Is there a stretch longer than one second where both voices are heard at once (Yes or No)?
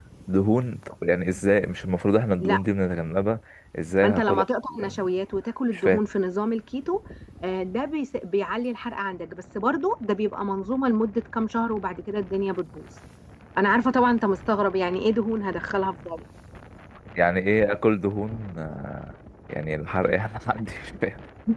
No